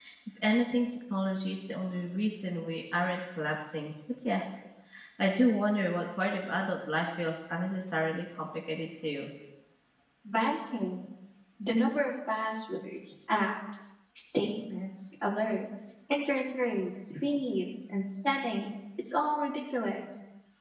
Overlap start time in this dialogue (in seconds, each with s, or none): none